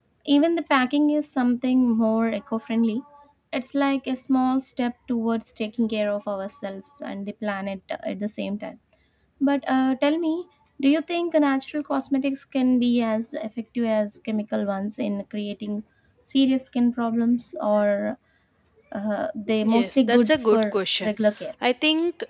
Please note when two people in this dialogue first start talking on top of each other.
19.6 s

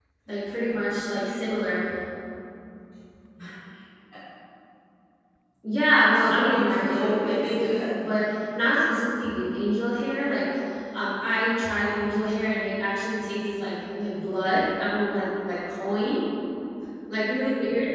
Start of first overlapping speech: 6.2 s

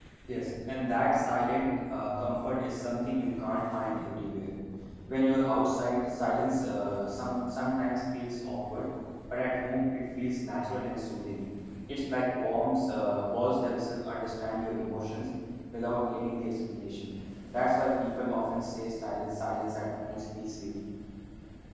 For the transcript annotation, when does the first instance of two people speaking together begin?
none

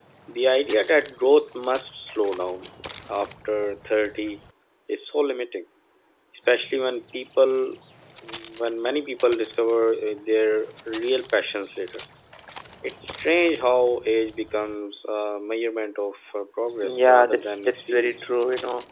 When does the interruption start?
16.8 s

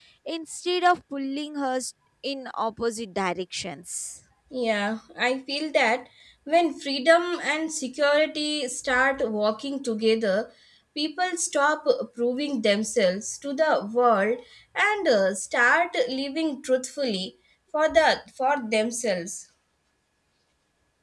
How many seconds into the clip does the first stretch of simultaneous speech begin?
none

